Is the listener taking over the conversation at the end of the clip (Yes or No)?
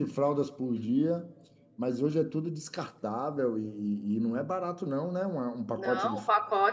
Yes